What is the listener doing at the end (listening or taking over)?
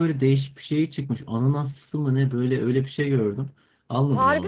listening